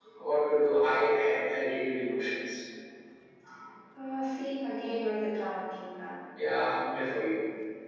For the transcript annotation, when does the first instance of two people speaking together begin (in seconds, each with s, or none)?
none